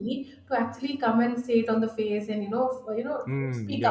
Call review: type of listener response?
taking over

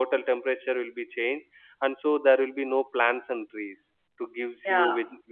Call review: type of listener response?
taking over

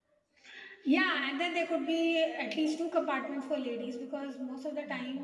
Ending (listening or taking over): listening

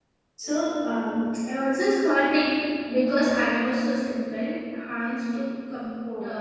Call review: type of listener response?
listening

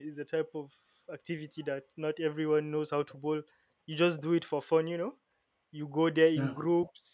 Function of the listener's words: listening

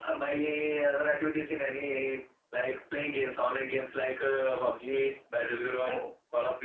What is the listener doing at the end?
listening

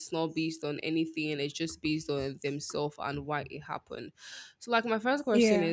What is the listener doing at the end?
listening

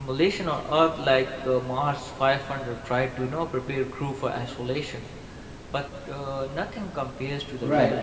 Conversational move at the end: taking over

